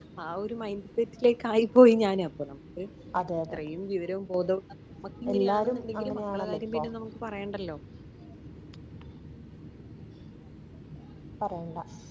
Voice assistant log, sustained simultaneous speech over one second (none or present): present